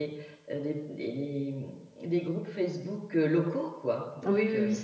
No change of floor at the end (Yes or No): No